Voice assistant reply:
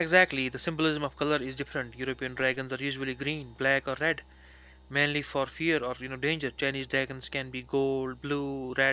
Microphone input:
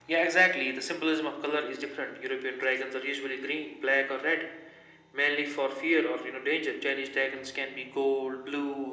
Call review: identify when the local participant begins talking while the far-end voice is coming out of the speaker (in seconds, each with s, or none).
none